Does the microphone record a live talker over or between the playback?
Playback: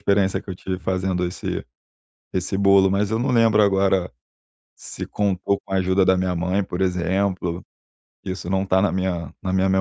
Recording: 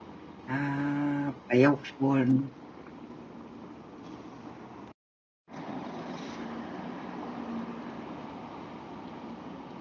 Yes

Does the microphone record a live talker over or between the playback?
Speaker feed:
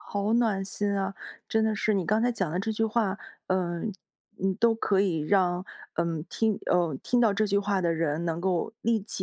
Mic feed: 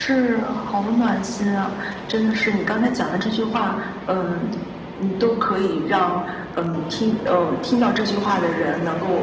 No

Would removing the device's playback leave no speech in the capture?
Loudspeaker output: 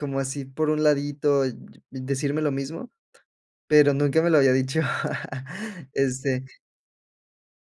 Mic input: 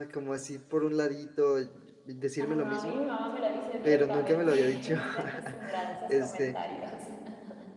No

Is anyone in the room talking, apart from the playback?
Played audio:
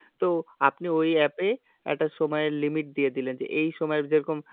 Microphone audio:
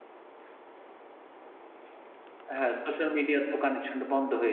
Yes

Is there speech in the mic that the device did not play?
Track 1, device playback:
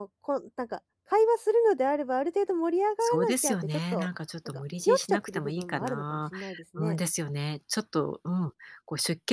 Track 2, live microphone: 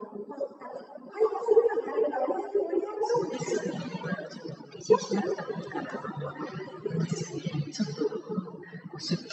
No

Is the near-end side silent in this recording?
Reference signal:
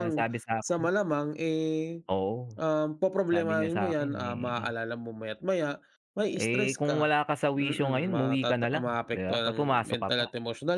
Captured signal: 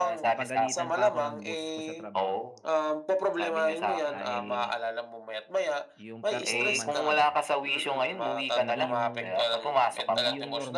No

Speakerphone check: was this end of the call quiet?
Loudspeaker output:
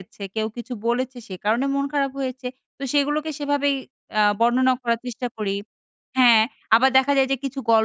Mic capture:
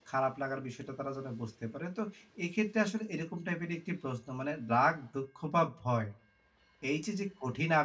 No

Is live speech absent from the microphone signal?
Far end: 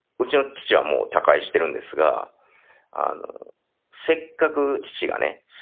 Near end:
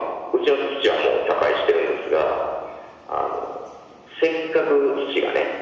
Yes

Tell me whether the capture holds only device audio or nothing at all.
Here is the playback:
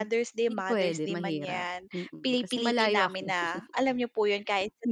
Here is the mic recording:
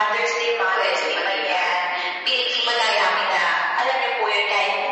Yes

